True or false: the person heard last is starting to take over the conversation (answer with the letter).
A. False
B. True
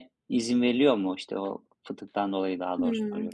B